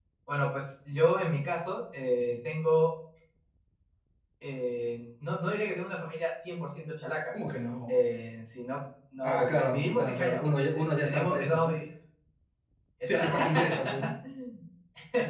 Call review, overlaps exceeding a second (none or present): present